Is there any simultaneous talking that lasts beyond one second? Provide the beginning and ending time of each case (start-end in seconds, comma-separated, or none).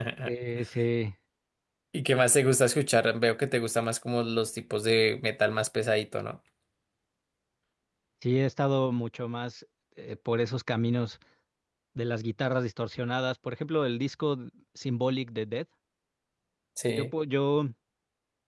none